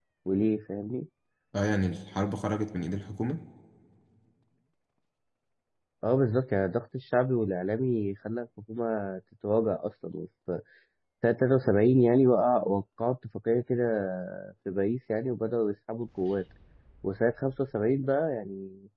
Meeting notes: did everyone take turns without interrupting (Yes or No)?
Yes